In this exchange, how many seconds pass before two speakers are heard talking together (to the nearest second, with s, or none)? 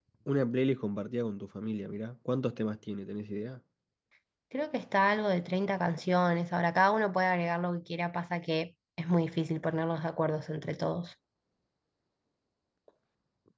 none